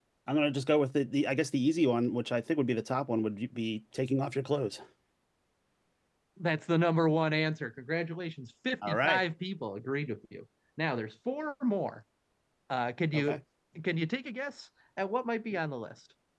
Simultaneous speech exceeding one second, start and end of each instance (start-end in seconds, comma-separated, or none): none